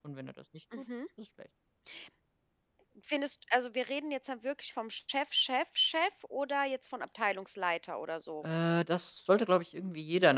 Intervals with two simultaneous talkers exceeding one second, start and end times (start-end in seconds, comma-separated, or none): none